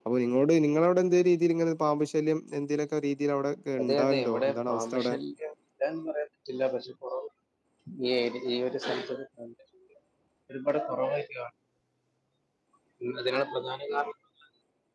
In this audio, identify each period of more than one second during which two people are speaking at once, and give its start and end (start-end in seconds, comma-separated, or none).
3.8-5.1